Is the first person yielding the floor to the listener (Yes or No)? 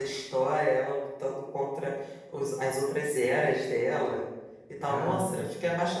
No